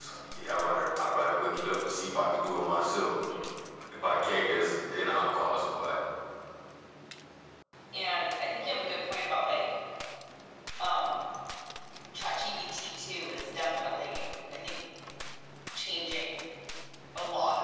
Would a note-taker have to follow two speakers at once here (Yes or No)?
No